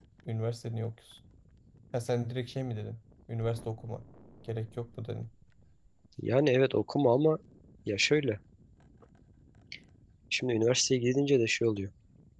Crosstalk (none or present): none